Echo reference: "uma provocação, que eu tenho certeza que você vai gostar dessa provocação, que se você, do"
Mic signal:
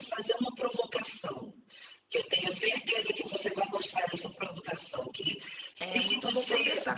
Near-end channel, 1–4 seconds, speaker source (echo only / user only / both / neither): echo only